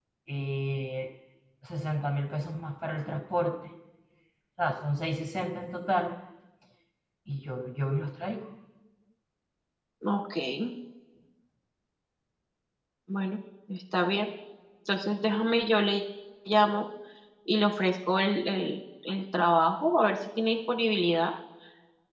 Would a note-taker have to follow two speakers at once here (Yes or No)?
No